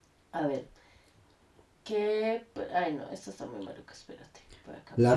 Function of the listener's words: taking over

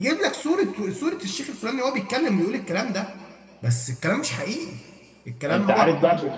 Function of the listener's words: taking over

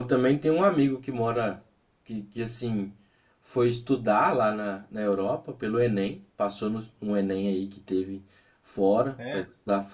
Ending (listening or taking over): listening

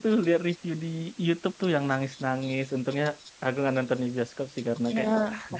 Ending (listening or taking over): taking over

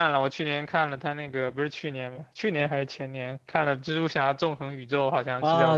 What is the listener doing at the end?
taking over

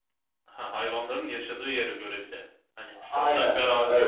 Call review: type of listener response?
taking over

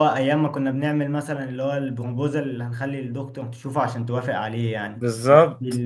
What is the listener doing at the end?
listening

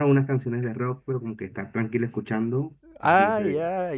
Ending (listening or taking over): taking over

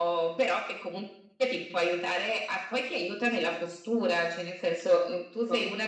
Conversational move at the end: listening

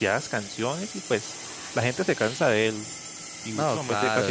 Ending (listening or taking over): taking over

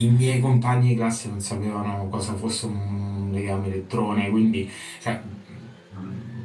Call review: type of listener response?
listening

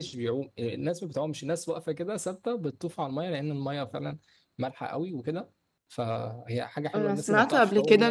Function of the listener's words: taking over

